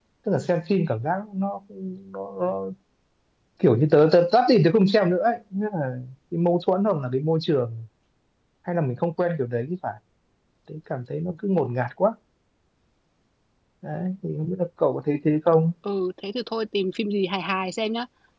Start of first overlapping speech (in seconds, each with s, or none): none